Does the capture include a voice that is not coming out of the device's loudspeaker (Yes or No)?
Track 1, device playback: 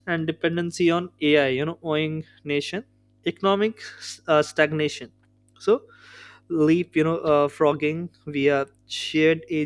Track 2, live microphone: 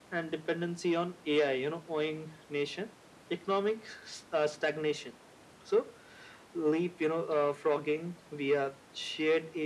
No